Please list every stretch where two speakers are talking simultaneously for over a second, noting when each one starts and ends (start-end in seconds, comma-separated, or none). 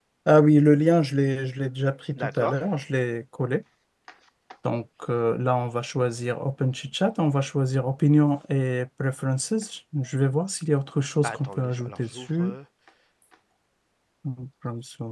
11.2-12.6